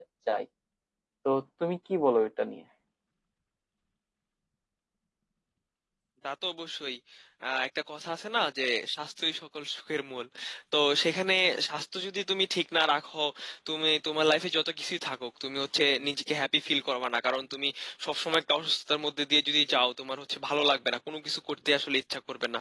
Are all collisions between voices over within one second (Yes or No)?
Yes